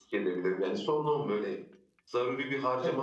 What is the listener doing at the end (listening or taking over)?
taking over